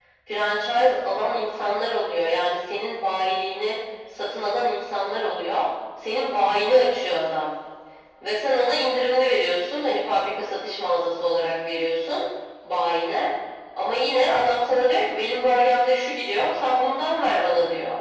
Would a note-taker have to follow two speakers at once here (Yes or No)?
No